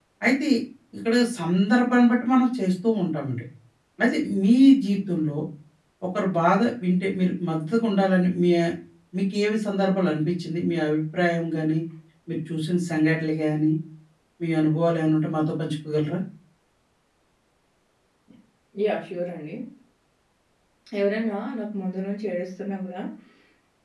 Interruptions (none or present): none